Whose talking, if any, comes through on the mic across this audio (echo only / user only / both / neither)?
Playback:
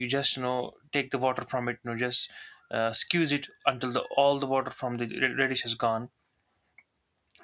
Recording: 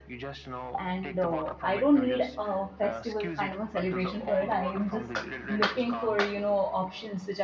both